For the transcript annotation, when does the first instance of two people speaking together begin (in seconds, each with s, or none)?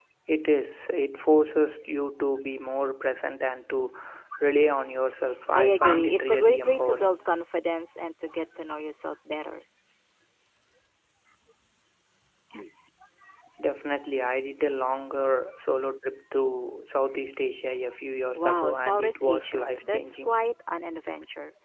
5.5 s